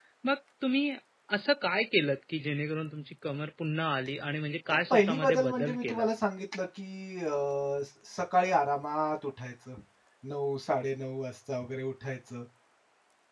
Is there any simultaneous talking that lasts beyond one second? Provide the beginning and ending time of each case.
4.7-6.1

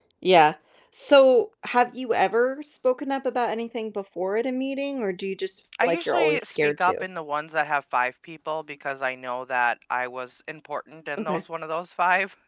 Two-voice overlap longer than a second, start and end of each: 5.8-7.0

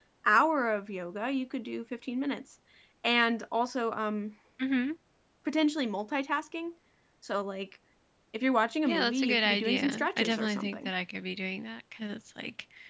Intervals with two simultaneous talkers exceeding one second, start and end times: 8.8-10.9

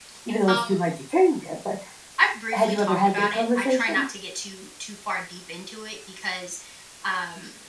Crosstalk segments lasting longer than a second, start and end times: 2.5-4.0

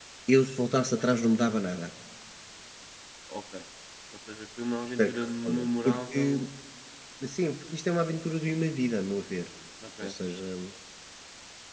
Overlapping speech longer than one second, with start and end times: 5.0-6.2

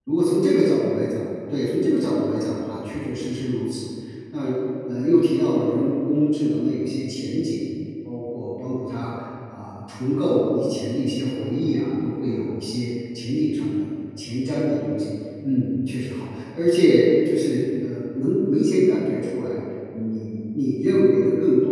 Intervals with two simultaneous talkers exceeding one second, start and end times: none

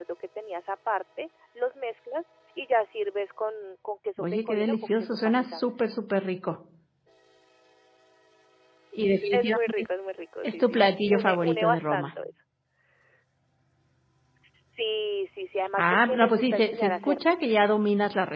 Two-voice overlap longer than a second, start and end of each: 4.2-5.8, 10.4-12.1, 15.8-17.4

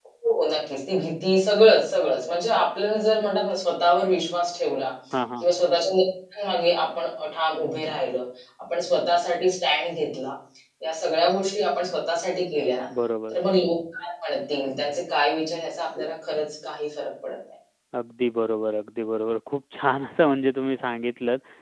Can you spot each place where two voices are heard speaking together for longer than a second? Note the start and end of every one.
none

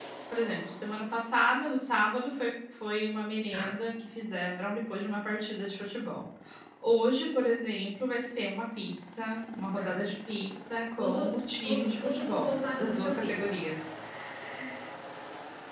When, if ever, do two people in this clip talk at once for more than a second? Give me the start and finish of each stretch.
11.0-13.4

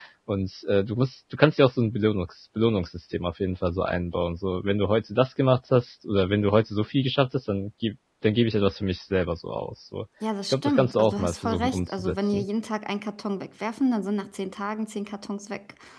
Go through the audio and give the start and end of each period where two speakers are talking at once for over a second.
10.4-12.4

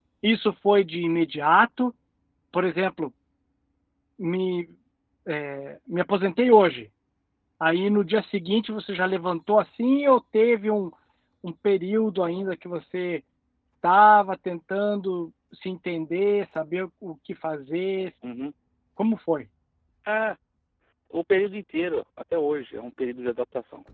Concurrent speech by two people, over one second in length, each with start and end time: none

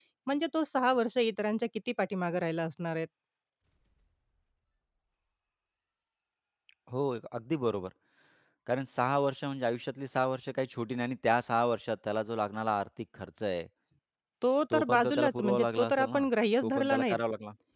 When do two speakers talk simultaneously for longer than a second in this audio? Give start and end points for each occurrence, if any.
14.7-16.2

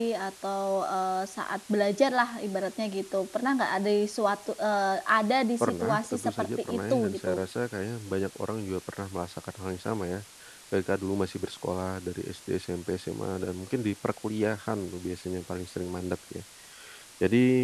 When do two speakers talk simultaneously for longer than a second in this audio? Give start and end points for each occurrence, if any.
5.6-7.3

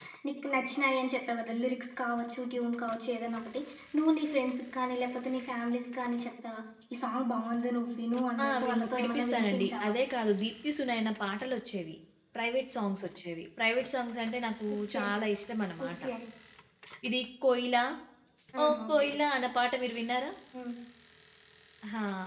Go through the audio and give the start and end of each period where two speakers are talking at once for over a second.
8.4-9.9

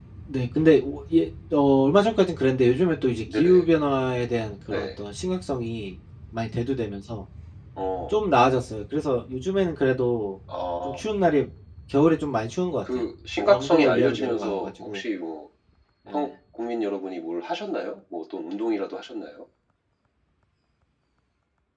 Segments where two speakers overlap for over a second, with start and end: 13.5-15.0

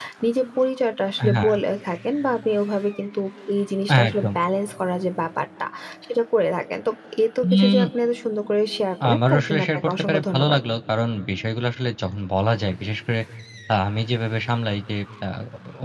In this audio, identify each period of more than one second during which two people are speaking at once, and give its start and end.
9.1-10.6

